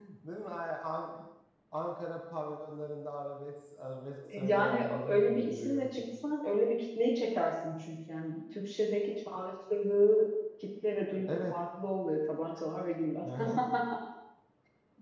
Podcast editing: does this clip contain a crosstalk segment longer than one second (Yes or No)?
Yes